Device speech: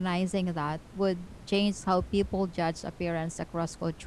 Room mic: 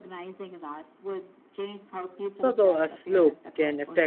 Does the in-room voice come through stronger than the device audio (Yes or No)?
Yes